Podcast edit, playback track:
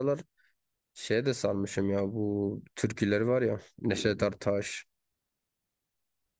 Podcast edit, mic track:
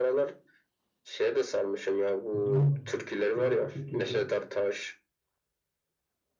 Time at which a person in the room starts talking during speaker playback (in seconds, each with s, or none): 2.3 s